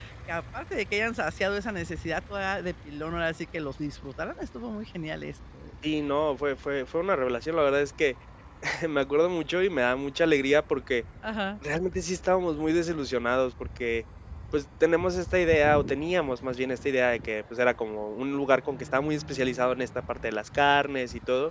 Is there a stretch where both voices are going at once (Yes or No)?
No